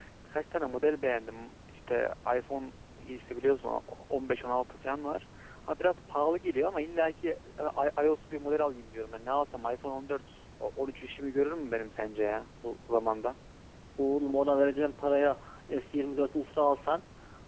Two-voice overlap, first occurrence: none

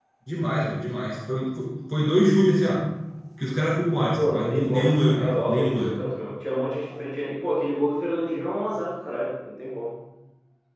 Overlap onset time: 4 s

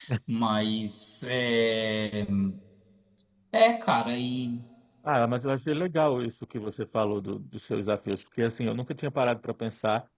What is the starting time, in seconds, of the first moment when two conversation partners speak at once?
none

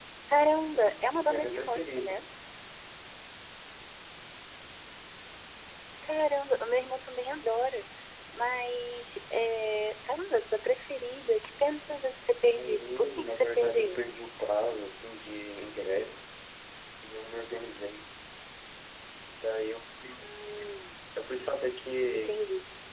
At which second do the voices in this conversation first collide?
1 s

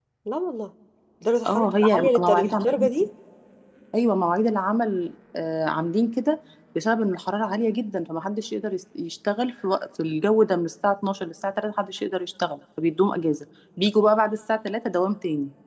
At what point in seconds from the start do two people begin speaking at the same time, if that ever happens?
1 s

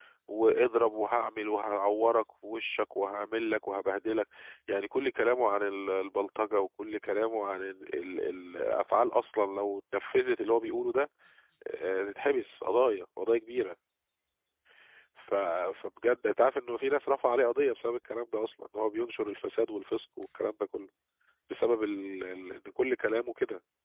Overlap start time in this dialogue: none

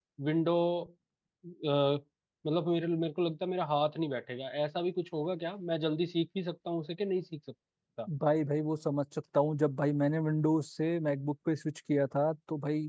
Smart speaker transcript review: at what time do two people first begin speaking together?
none

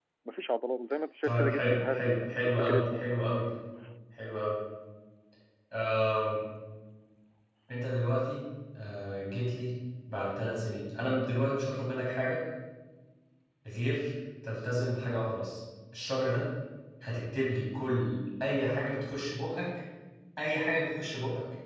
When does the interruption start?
1 s

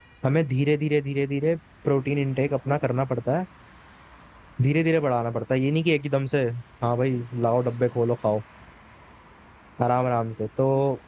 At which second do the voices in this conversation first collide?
none

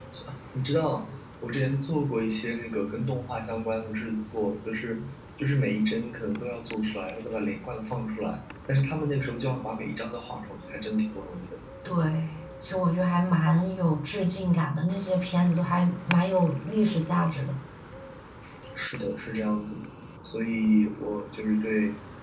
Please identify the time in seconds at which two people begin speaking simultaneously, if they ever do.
none

